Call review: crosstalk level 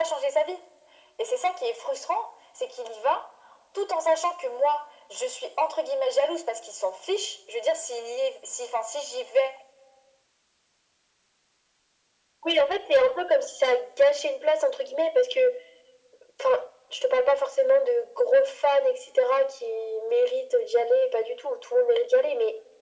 none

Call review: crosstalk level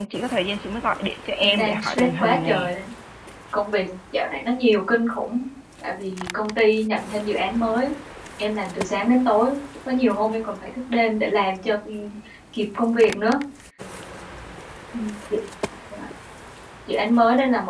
present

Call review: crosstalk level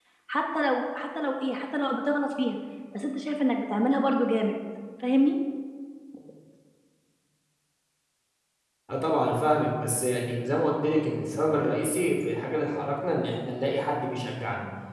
none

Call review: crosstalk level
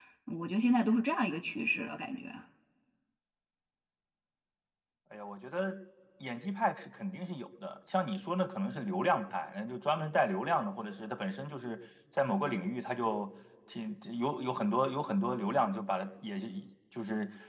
none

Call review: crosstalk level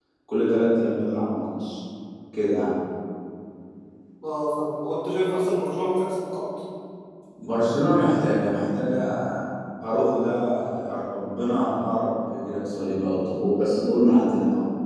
none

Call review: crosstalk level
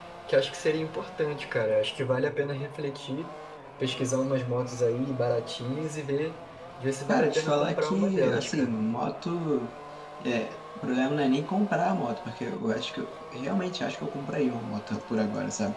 present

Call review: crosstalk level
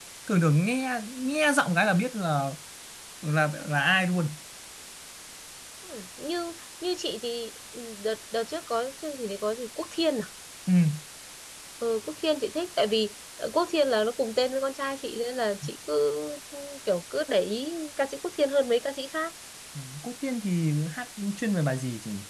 none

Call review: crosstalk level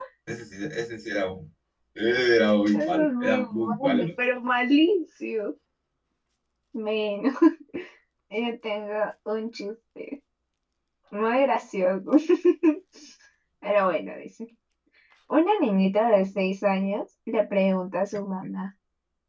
present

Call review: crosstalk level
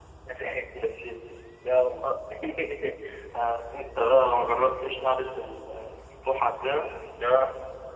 none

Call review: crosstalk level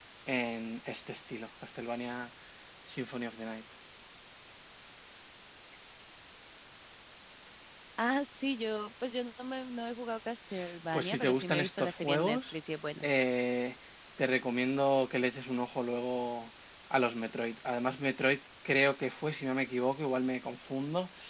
present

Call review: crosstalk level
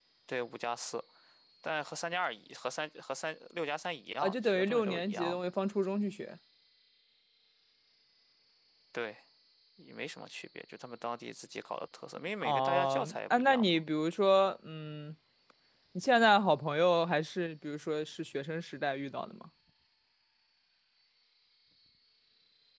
present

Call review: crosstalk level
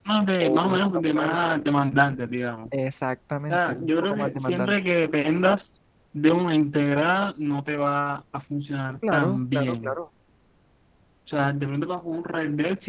present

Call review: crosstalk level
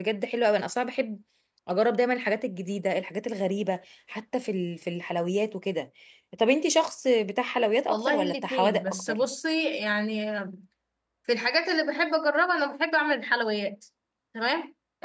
present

